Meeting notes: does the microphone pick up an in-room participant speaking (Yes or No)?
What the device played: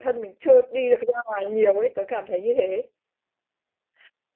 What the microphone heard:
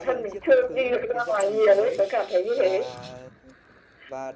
Yes